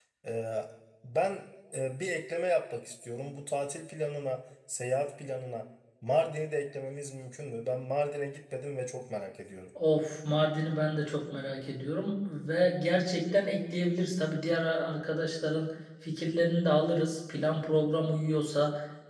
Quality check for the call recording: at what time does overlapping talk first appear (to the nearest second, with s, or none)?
none